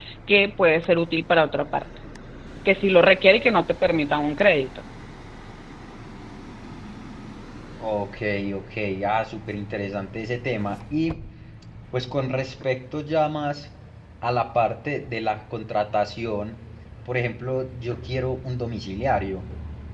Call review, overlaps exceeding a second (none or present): none